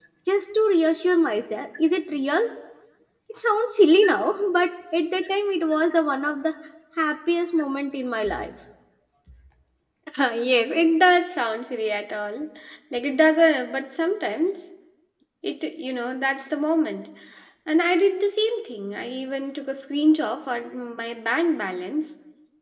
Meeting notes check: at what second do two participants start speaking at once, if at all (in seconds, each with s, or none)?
none